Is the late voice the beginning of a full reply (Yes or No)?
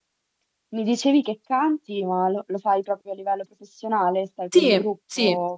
Yes